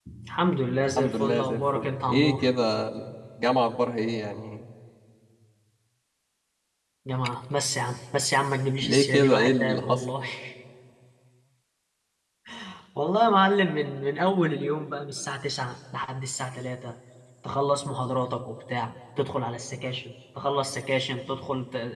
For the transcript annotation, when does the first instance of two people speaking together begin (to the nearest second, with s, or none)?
1 s